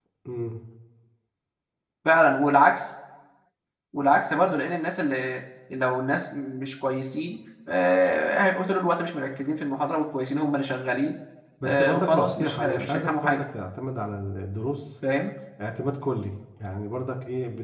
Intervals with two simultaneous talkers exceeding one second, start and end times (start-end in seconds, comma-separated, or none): 11.6-13.4